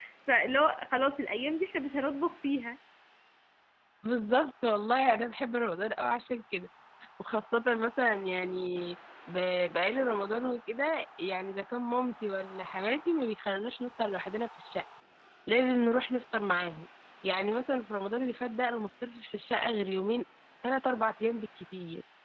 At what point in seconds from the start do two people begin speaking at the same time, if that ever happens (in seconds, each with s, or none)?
none